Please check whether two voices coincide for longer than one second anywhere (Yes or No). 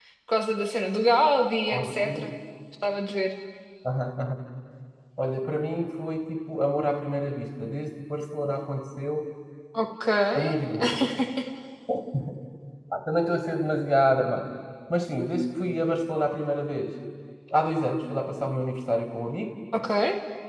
No